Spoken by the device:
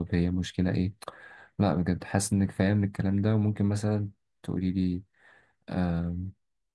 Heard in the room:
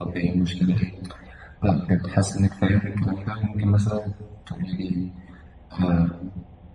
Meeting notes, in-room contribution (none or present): none